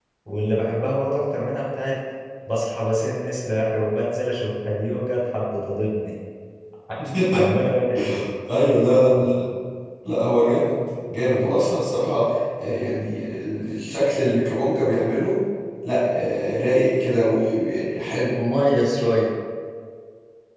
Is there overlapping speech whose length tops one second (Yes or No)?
No